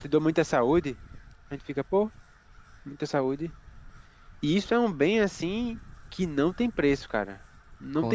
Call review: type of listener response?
listening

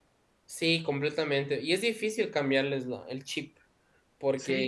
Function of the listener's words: taking over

